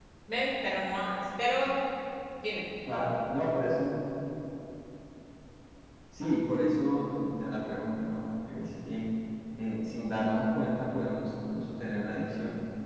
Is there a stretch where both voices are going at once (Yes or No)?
No